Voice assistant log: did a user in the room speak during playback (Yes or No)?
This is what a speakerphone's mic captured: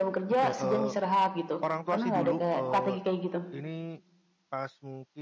Yes